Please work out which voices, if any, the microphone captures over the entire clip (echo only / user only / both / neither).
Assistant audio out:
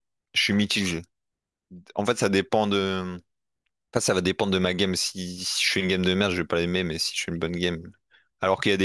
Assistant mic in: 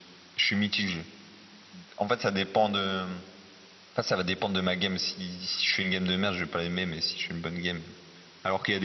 echo only